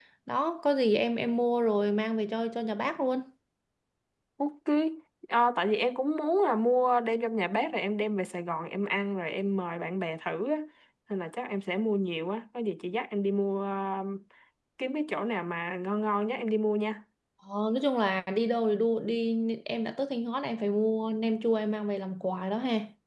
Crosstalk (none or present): none